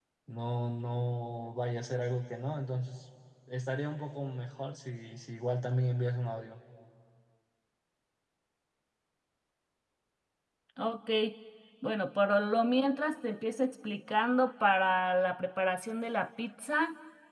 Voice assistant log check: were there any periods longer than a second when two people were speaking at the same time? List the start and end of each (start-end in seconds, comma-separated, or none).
none